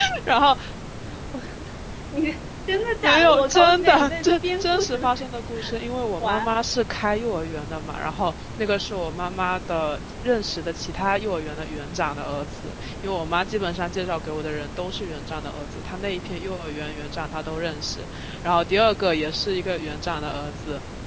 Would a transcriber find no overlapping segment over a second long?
No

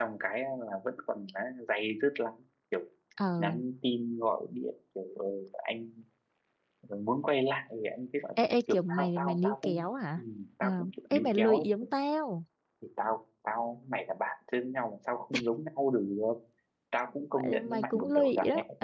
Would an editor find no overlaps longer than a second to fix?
No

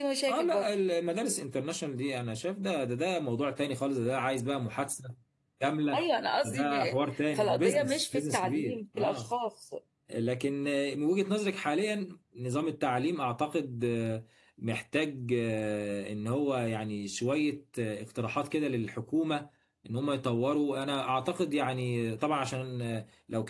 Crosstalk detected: Yes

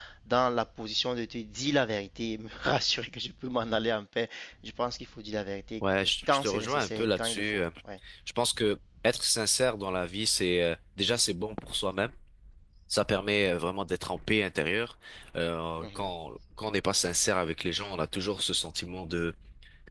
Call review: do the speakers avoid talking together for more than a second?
No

